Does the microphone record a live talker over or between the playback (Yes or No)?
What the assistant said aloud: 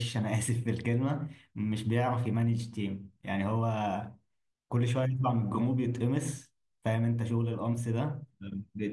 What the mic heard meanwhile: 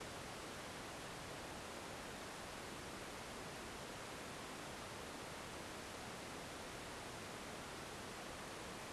No